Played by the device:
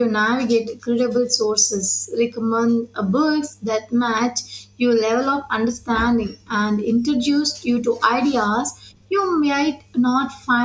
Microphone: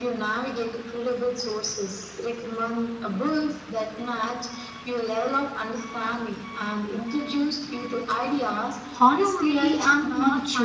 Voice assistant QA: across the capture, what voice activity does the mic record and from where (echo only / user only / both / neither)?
both